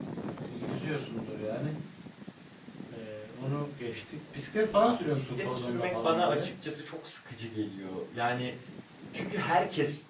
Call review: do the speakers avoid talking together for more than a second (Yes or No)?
No